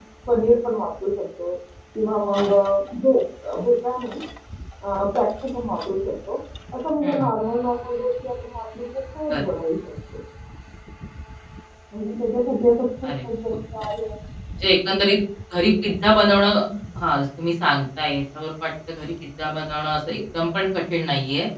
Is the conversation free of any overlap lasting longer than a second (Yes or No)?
Yes